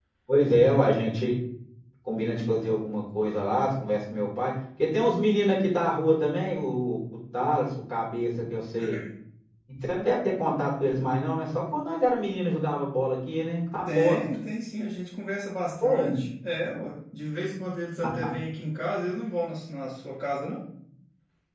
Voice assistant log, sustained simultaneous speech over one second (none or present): none